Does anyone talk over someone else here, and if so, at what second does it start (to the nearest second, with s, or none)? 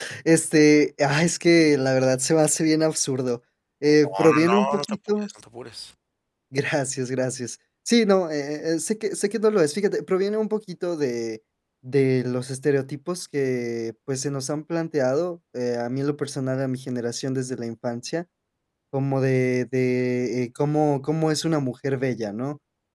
4 s